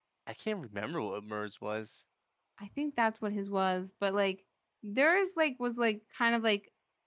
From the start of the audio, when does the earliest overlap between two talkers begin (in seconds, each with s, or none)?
none